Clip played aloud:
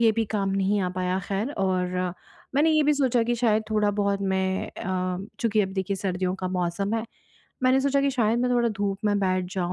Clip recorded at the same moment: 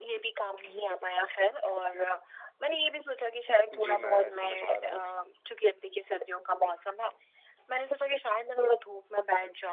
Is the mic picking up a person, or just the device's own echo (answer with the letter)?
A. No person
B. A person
B